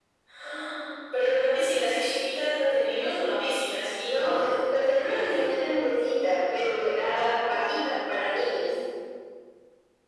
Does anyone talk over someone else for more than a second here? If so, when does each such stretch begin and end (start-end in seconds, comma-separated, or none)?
none